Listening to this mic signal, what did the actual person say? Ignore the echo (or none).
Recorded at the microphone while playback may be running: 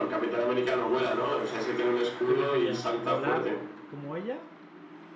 ¿Qué preferirías? ¿Volar como ella